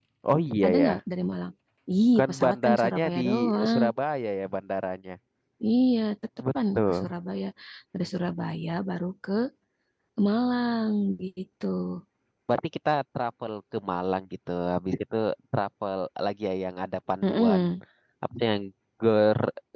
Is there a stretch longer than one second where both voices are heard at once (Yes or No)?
Yes